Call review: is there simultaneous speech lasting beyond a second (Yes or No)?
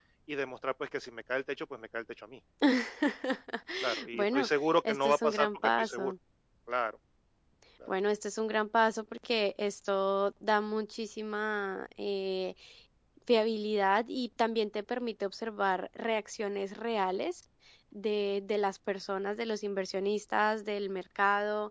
Yes